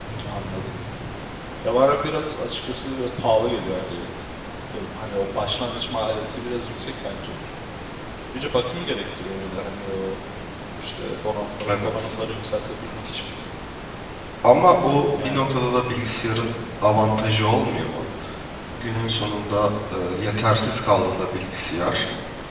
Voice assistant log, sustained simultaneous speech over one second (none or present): none